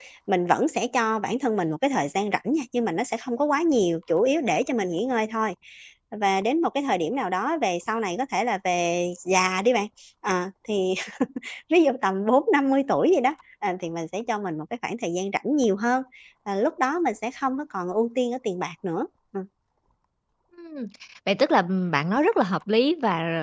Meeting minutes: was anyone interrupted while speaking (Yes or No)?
No